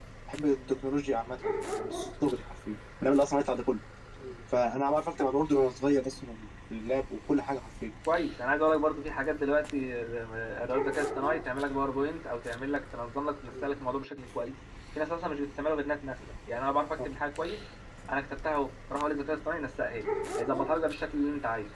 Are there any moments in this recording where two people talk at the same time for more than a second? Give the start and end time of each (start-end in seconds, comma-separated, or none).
none